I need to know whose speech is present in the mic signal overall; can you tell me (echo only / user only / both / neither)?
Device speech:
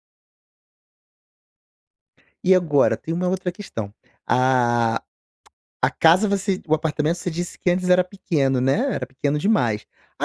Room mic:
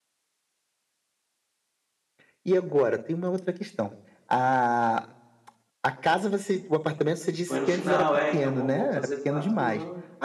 both